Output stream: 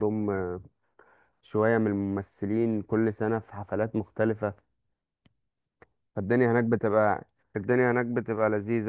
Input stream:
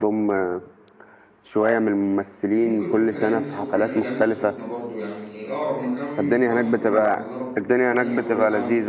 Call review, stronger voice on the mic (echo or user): echo